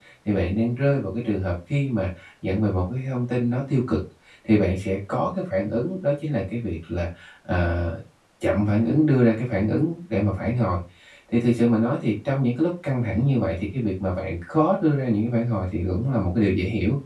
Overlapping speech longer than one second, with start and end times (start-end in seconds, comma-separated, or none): none